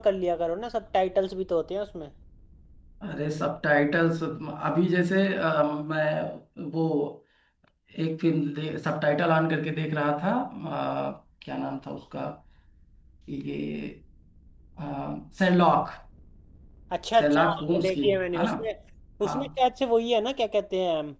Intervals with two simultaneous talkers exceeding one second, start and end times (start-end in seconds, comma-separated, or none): 17.2-18.5